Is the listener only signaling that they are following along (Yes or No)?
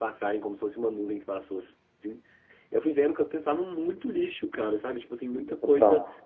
Yes